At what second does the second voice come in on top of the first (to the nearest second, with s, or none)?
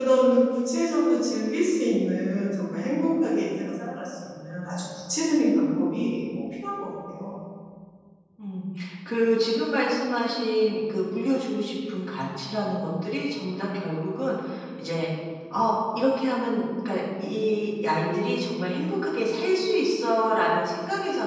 none